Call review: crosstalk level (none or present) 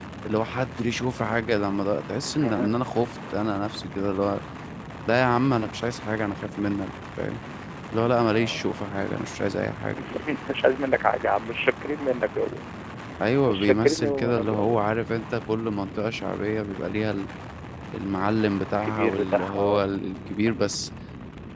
present